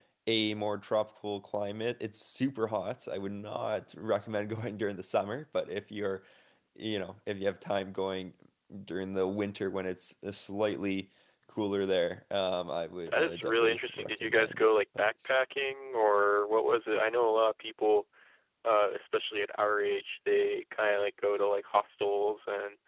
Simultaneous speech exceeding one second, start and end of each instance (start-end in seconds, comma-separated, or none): 13.1-15.1